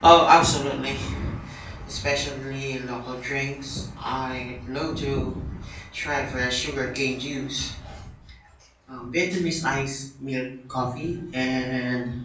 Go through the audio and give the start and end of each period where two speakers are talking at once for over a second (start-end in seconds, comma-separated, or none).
none